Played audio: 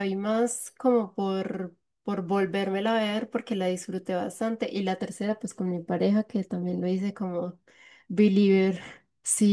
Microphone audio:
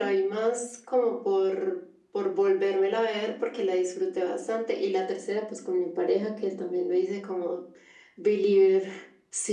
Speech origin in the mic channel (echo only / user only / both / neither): echo only